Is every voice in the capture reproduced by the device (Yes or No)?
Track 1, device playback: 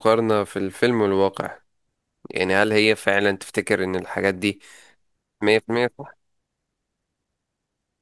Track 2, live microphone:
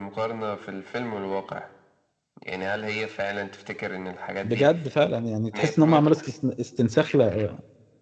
No